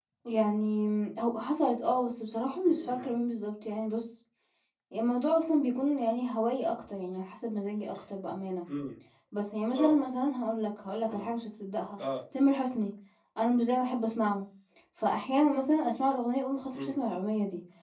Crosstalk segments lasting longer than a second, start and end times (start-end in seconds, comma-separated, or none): none